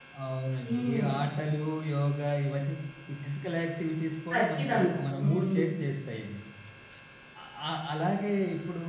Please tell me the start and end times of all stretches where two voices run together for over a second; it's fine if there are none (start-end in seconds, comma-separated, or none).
4.3-5.6